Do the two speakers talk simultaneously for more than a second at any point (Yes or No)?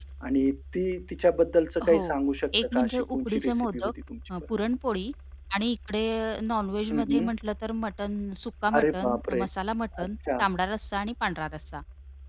Yes